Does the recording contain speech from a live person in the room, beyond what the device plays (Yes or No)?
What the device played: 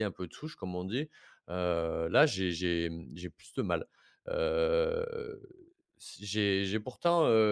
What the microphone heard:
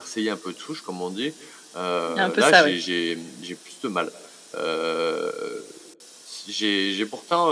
Yes